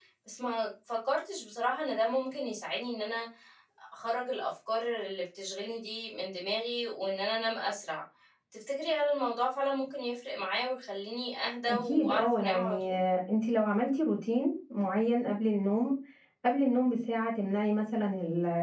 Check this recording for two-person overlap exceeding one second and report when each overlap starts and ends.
11.7-13.0

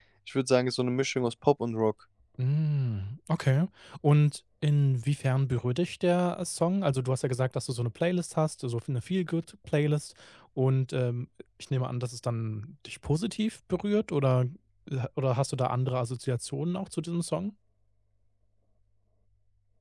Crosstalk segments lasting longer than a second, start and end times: none

